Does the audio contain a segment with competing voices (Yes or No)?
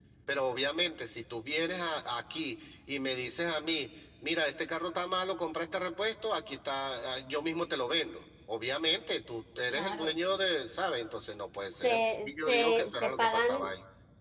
Yes